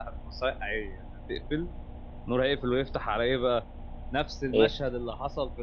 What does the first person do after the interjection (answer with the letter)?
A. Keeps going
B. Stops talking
A